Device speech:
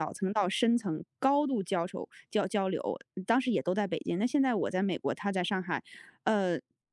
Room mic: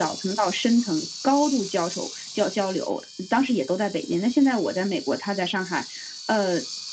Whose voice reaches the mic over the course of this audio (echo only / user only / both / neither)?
echo only